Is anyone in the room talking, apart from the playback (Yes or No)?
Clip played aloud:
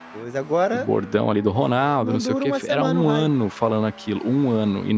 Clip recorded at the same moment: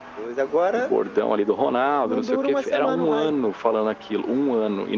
No